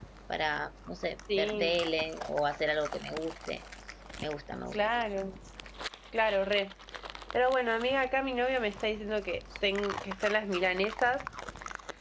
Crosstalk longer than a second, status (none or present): none